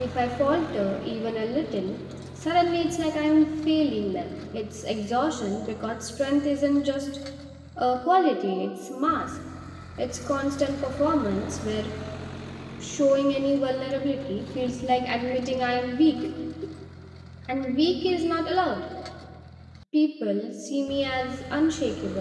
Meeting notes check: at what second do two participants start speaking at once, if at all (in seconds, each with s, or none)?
none